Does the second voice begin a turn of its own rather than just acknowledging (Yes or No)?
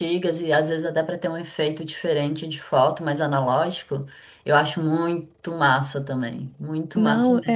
Yes